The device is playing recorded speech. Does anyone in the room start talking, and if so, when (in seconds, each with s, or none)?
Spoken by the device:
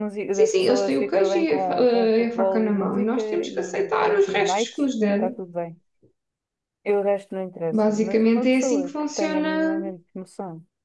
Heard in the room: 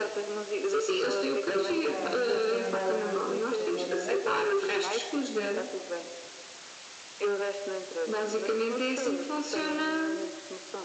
1.6 s